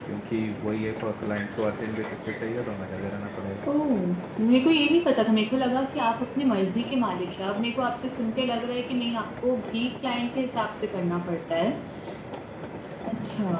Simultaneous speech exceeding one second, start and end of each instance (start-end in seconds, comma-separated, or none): none